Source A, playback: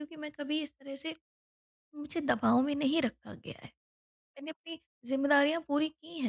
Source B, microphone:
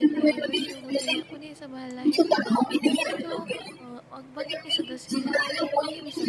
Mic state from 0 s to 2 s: both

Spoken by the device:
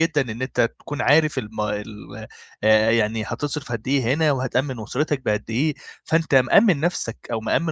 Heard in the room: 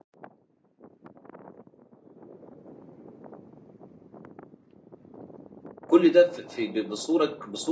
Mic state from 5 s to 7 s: user only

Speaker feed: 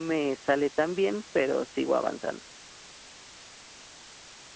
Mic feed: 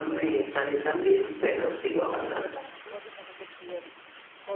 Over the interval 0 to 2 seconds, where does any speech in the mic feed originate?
both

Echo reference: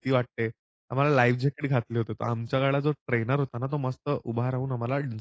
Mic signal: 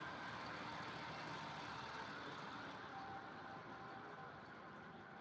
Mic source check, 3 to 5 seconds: neither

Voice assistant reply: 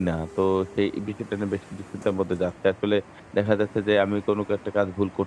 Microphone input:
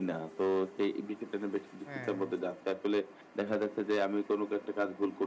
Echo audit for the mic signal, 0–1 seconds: echo only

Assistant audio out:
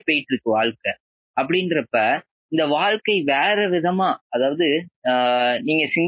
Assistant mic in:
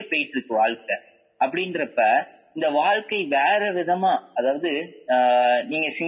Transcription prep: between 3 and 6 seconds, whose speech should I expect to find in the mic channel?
echo only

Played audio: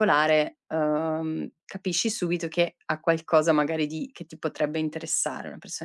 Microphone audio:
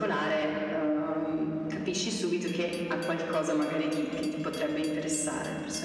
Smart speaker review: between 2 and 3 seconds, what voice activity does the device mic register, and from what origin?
echo only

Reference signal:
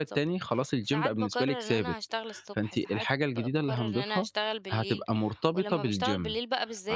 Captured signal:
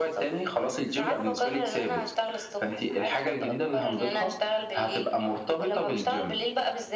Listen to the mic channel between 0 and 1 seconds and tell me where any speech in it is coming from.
echo only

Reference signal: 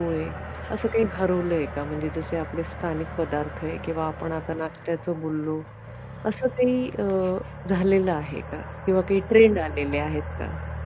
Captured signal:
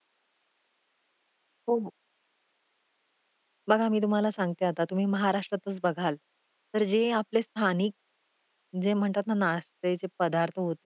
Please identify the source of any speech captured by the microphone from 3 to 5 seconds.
user only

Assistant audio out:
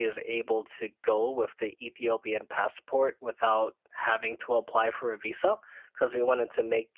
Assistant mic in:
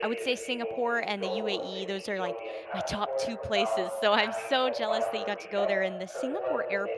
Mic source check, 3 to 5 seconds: both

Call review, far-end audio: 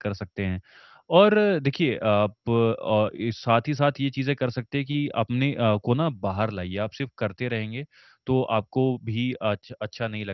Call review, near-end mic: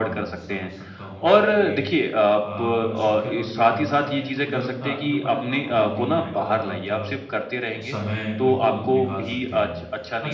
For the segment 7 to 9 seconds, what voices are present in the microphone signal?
both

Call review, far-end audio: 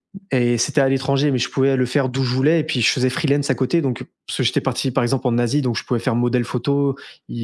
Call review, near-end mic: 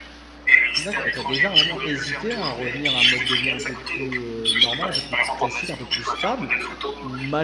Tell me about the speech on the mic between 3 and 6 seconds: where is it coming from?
both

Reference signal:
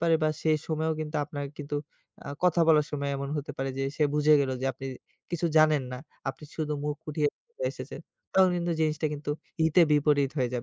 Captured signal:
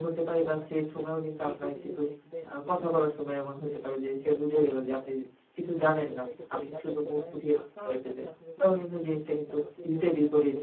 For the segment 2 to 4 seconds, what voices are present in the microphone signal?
both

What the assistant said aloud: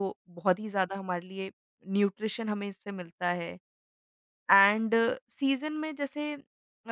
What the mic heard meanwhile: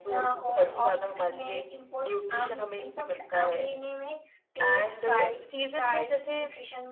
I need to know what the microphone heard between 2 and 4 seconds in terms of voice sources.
both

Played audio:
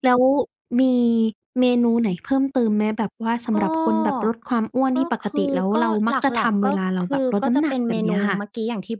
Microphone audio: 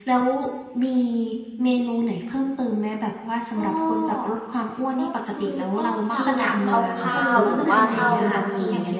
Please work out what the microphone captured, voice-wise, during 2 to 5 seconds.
echo only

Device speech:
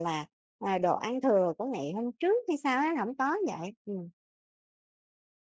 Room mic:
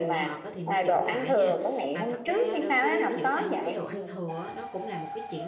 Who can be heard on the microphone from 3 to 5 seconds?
both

